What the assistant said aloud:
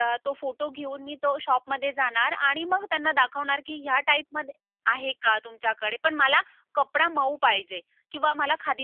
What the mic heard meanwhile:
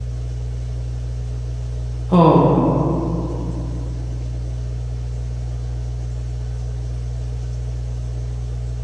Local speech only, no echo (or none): हो.